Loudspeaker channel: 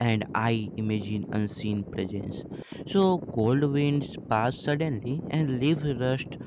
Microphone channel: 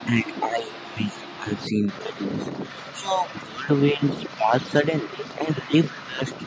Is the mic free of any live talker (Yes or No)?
Yes